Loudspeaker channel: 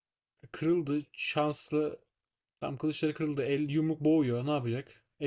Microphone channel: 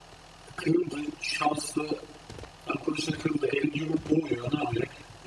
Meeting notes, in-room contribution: none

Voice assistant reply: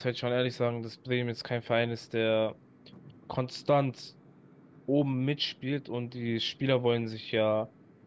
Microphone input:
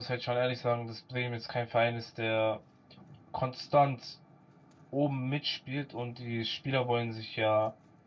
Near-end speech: none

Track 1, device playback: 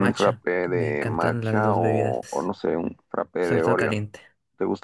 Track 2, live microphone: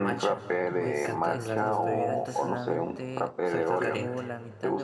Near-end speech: present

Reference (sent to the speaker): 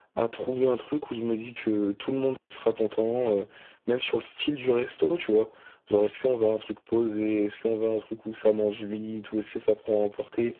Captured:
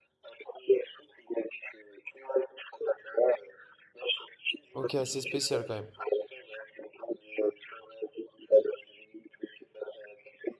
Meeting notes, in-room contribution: present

